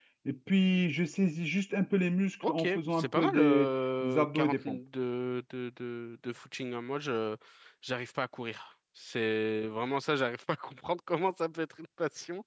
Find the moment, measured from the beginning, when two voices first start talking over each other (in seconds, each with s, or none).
2.4 s